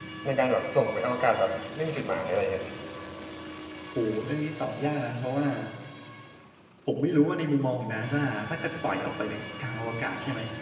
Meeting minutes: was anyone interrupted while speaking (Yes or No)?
No